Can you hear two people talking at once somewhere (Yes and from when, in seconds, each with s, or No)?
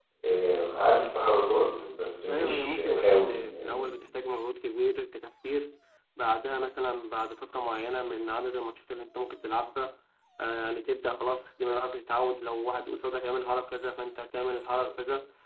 Yes, from 2.3 s